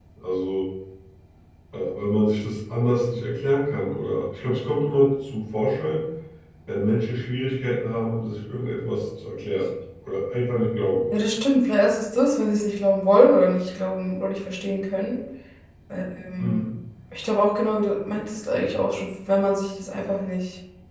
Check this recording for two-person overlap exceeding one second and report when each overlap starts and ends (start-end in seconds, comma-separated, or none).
none